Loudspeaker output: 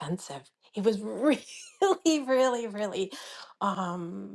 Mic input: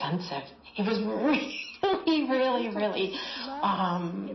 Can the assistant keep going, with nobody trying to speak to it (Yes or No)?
No